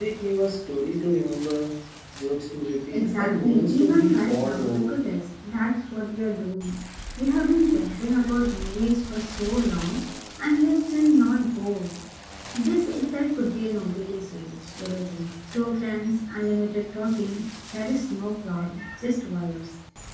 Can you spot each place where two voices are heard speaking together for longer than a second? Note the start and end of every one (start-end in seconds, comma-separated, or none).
2.9-4.9